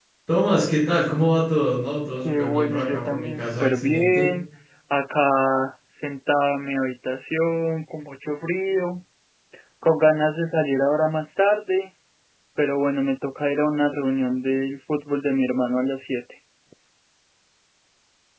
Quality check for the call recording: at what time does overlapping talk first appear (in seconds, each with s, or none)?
2.2 s